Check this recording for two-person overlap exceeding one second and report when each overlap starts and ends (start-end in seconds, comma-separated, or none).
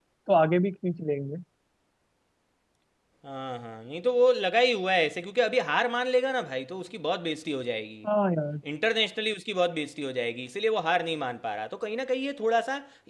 none